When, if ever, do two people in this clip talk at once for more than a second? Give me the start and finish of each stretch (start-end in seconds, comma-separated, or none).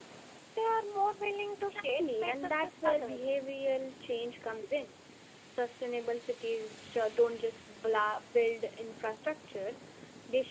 2.0-3.3